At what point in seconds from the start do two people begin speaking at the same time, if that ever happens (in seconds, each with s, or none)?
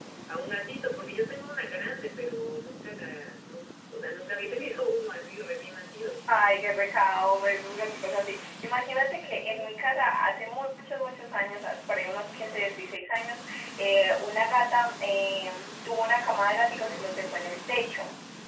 none